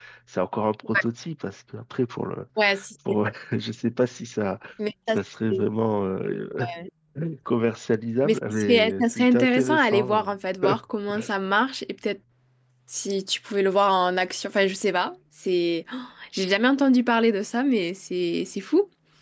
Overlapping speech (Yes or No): Yes